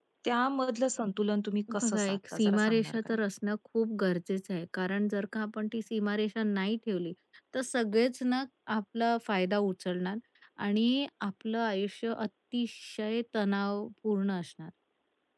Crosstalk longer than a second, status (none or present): present